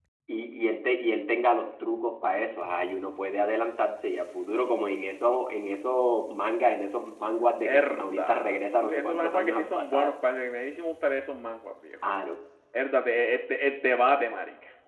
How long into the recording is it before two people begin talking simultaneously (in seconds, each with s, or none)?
7.6 s